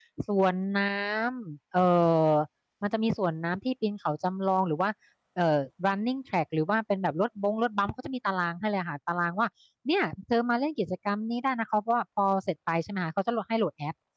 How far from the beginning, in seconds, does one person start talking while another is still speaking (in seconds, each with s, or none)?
none